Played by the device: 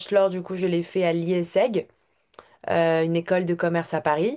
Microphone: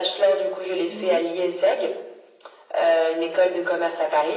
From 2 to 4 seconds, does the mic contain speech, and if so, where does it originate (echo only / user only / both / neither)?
echo only